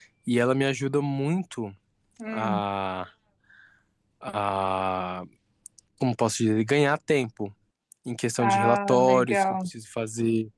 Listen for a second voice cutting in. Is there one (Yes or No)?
Yes